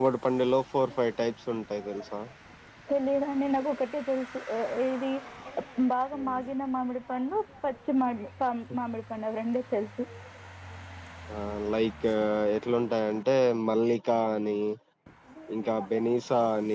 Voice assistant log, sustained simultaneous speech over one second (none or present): none